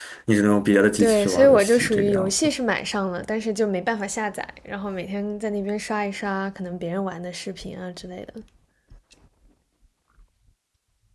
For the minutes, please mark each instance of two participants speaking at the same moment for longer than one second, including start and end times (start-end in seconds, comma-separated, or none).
1.0-2.5